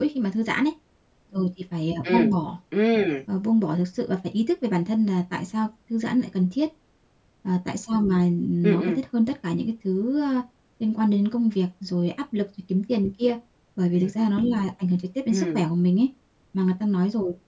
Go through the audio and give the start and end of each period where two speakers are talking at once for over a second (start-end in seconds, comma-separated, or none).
none